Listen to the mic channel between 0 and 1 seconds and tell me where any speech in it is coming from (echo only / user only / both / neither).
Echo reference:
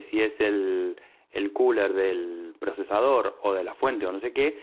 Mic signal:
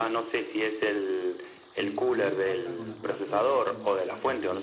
echo only